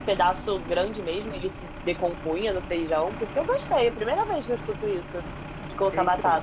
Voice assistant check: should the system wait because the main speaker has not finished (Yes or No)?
No